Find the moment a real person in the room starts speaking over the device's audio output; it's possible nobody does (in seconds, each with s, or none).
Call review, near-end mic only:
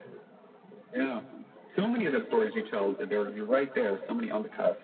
none